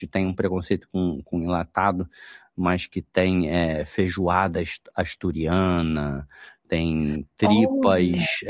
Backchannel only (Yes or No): Yes